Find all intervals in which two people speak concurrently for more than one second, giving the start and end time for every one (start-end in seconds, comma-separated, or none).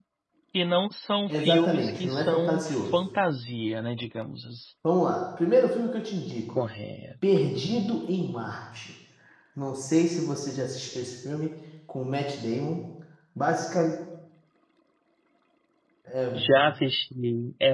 1.3-3.0